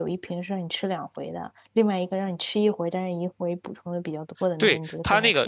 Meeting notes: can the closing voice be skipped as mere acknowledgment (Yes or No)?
No